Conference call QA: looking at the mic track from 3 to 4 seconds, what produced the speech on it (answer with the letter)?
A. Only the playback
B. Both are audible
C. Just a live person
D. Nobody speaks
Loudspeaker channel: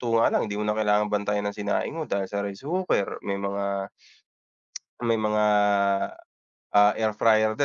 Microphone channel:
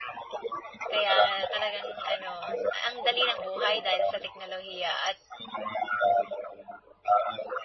B